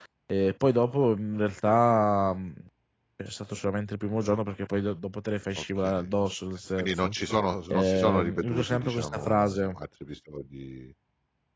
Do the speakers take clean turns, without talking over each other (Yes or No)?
No